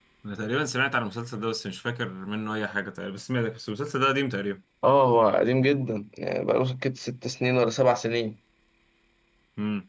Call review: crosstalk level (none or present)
none